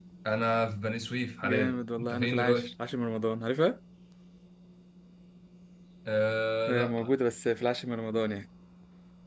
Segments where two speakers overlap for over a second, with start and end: 1.4-2.7

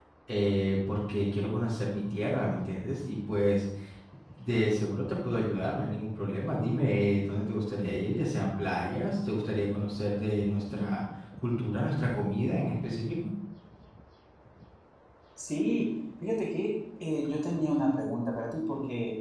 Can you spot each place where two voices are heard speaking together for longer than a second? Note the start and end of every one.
none

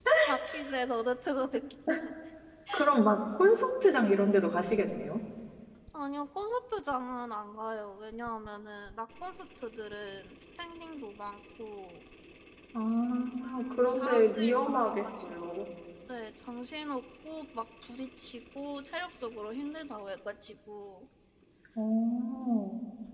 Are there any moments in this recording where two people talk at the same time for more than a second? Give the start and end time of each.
13.7-15.0

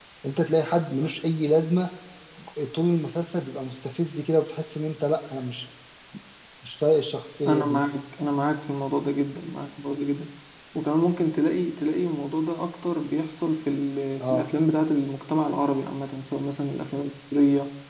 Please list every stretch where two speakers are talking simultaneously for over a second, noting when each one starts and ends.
none

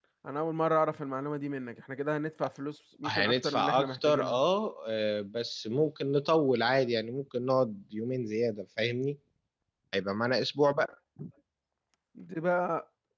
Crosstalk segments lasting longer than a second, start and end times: 3.1-4.4

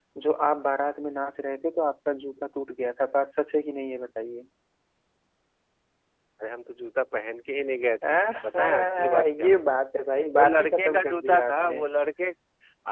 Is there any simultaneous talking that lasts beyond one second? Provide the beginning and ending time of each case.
8.1-9.6, 10.3-11.8

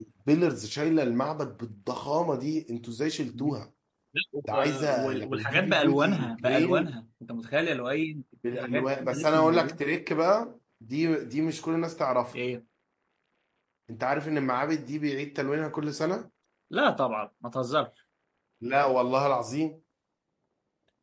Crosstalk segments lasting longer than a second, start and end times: 4.5-6.9, 8.5-9.8

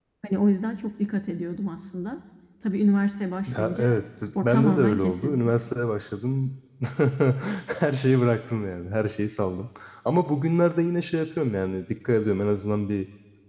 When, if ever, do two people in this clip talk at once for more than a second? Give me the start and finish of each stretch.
3.5-5.5

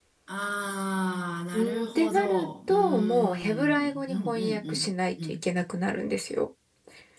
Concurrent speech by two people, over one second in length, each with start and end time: 1.5-4.7

